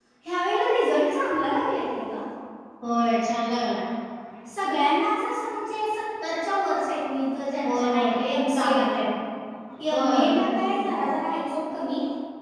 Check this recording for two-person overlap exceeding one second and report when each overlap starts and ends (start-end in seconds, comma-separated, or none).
9.9-11.2